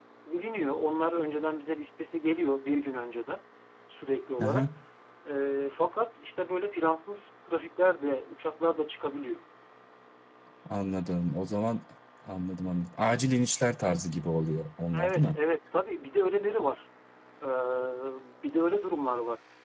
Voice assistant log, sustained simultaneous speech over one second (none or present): none